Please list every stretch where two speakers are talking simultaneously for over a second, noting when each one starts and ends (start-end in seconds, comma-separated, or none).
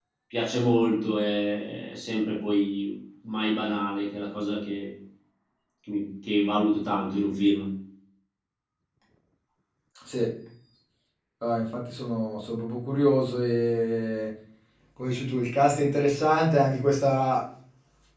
none